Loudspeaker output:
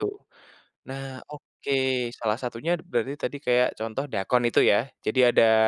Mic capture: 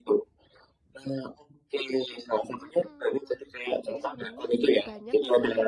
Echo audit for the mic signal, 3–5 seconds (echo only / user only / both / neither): both